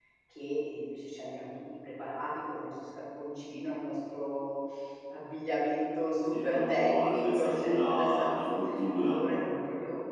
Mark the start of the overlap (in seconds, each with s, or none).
6.3 s